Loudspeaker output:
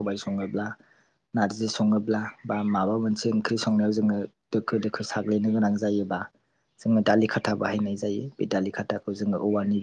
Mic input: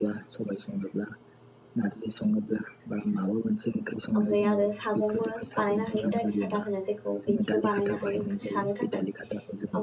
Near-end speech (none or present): present